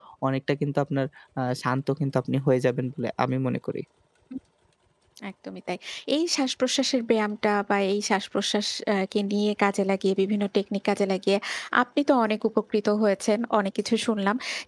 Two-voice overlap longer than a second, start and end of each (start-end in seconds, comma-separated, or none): none